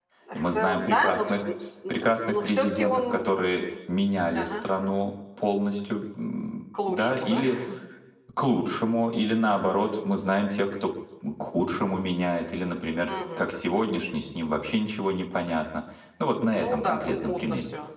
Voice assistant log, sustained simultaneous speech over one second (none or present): present